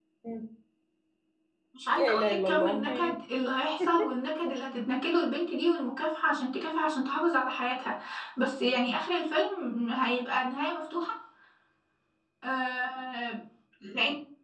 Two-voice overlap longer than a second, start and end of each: 1.9-3.2

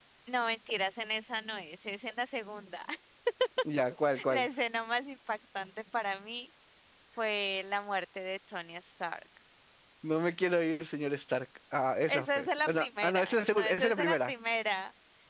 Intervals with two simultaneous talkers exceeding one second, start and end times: 12.1-14.3

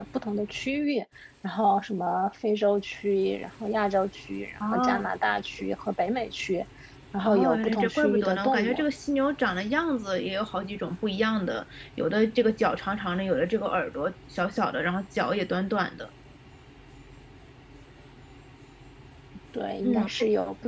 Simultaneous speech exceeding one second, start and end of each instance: 7.2-8.8

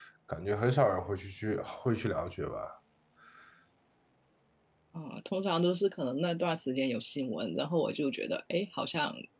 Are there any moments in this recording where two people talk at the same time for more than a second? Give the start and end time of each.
none

